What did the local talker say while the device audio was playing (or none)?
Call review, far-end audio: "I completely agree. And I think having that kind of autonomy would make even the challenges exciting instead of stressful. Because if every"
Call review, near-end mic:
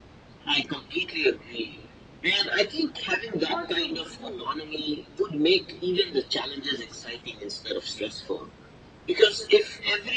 what you do,